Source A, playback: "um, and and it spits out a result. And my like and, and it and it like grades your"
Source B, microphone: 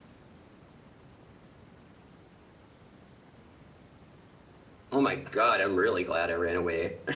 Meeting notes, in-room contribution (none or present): present